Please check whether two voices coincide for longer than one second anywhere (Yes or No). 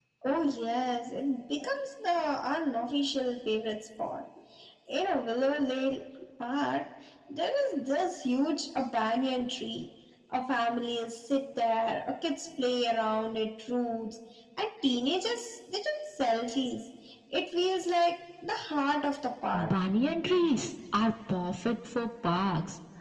No